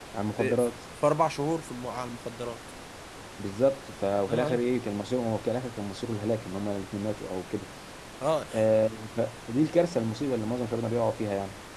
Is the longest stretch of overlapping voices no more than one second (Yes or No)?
Yes